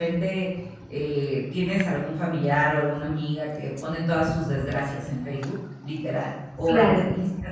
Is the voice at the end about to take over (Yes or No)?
No